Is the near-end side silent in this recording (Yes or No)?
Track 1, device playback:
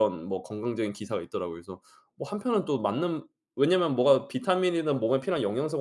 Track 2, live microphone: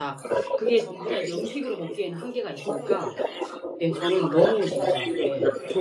No